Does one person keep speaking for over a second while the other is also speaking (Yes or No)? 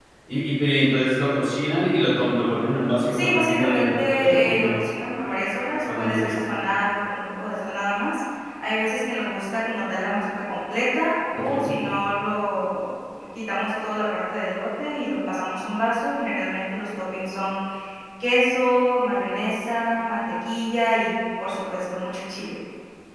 Yes